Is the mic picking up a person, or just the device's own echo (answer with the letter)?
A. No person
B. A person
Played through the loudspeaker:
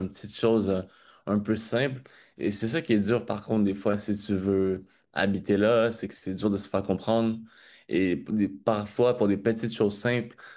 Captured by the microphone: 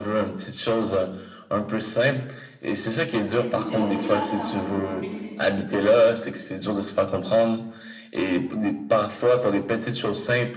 B